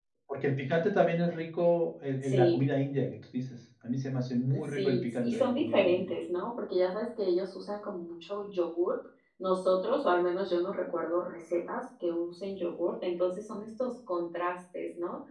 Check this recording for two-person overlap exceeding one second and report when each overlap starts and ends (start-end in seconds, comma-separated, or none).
4.7-6.1